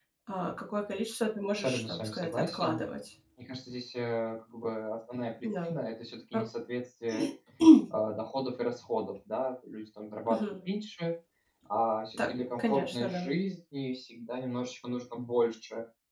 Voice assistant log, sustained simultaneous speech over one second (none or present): present